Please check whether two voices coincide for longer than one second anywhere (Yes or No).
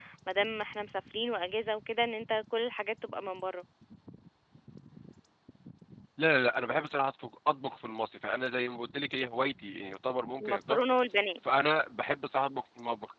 No